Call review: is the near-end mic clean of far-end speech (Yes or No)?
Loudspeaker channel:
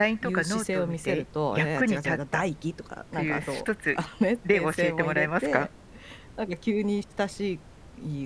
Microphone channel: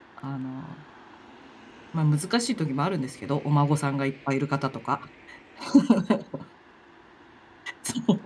Yes